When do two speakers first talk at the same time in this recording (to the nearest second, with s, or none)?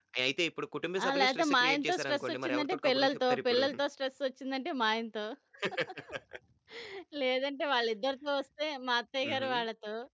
1 s